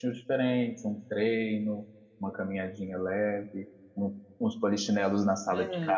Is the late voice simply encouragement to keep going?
Yes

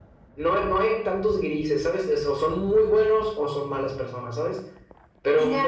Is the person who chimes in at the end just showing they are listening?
Yes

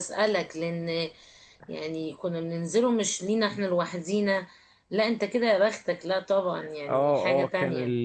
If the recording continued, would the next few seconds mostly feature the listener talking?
Yes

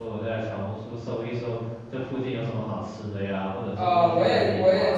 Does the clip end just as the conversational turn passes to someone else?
Yes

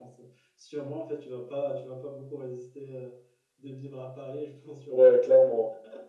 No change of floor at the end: No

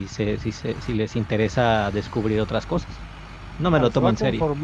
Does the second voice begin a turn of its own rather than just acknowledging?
Yes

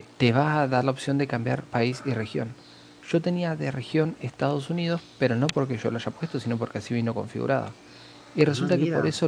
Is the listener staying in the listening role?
Yes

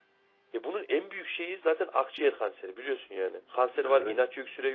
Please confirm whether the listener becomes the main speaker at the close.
No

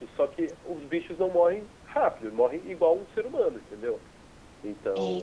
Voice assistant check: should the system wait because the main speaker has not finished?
No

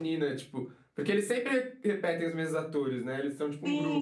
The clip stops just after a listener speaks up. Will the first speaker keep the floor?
No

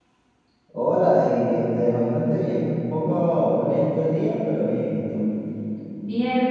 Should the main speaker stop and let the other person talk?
Yes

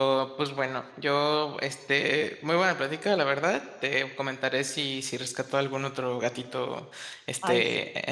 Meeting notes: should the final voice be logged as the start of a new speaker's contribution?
No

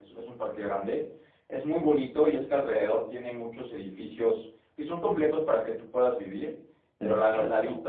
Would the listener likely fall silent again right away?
Yes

